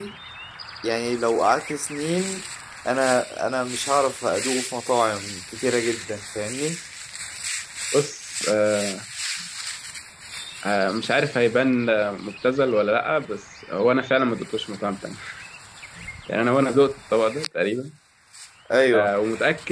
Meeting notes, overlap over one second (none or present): none